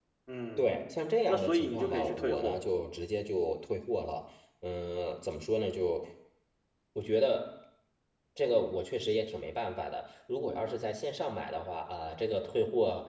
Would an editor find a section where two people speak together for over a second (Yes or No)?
Yes